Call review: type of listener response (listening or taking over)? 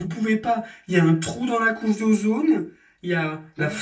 listening